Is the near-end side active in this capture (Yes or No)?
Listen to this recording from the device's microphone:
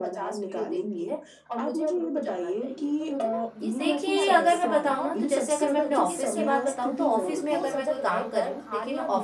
Yes